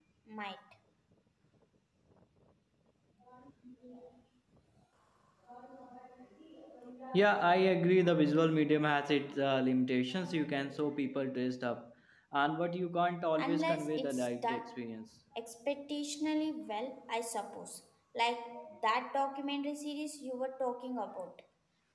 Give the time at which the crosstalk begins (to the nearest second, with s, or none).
13 s